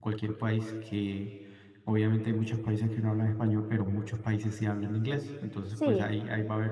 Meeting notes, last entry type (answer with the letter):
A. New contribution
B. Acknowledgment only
B